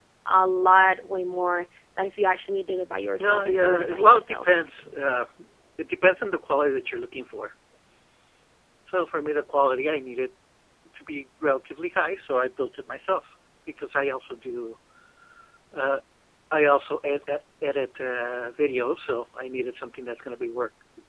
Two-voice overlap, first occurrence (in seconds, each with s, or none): 3.2 s